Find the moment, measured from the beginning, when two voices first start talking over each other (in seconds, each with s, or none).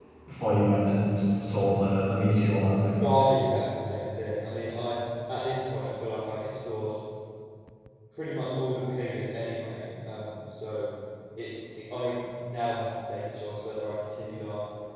none